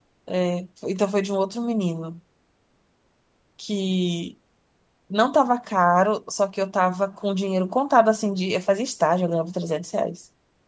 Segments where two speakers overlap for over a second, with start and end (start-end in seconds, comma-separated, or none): none